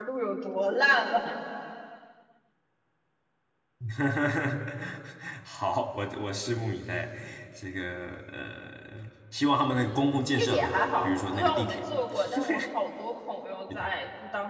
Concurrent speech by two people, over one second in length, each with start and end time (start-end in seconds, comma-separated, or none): 10.4-11.8